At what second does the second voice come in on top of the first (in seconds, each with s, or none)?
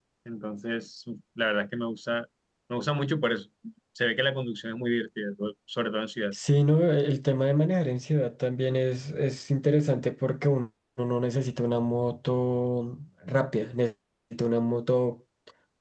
none